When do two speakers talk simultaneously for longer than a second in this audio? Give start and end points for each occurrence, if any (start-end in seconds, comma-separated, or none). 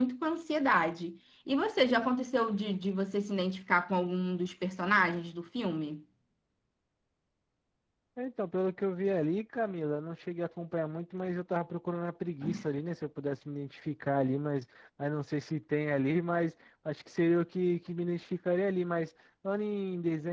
none